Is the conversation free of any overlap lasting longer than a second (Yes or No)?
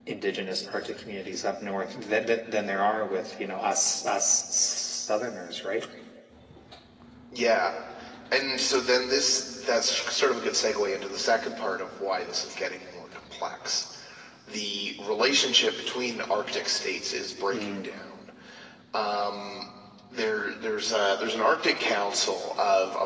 Yes